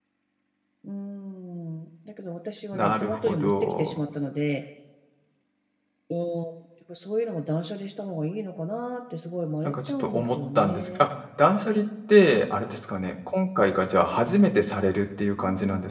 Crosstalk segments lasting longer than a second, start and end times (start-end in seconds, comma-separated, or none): 2.7-4.0, 9.6-11.1